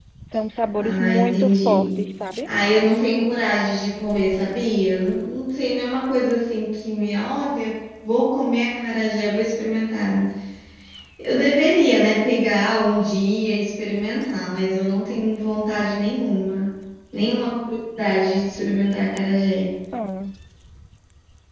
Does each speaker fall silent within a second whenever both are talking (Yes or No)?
No